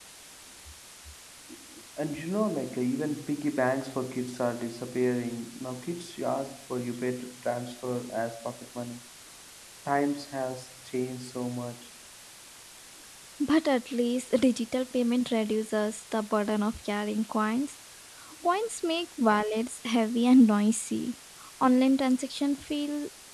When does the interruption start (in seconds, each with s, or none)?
none